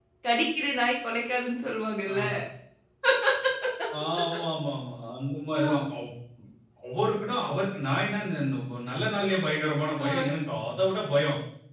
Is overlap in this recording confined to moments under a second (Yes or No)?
Yes